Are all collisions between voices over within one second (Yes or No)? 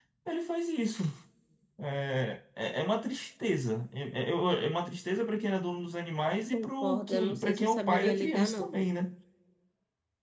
No